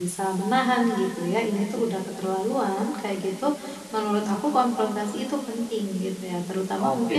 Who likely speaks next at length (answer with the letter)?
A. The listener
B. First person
B